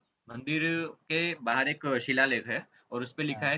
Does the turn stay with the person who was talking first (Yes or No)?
Yes